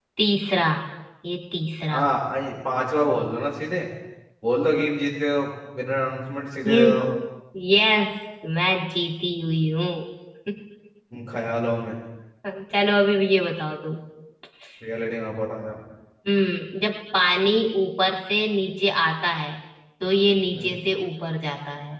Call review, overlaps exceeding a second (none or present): none